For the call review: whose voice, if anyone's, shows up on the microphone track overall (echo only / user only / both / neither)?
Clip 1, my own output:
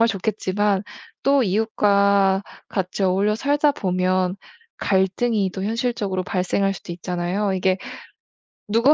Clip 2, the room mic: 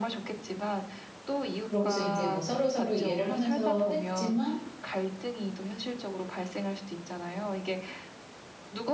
both